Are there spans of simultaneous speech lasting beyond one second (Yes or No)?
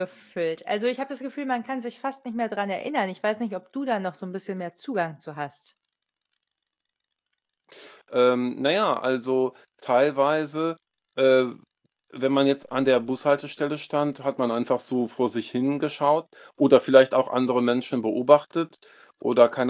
No